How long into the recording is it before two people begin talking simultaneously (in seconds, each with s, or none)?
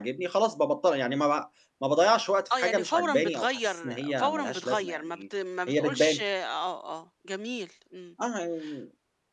2.5 s